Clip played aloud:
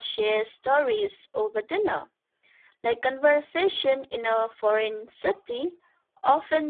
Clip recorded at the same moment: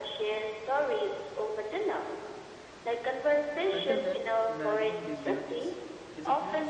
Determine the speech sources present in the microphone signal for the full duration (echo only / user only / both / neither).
both